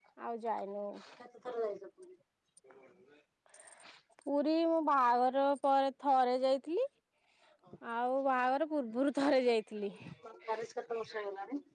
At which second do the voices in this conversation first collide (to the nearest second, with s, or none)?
none